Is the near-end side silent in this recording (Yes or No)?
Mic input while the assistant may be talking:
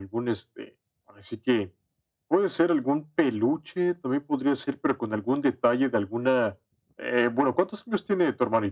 Yes